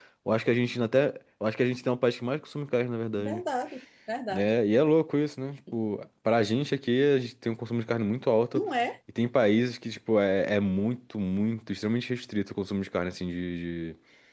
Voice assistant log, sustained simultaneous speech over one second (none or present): none